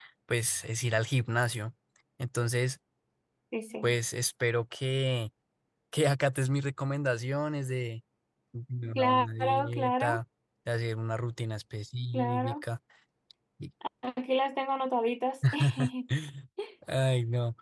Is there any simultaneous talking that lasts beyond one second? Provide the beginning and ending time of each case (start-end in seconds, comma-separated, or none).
9.0-10.2